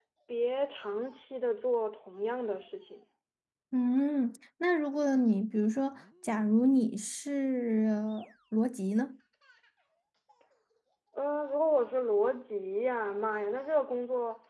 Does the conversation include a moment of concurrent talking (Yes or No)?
No